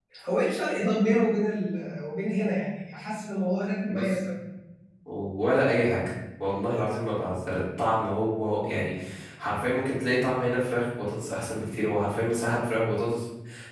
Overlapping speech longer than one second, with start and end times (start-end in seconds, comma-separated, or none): none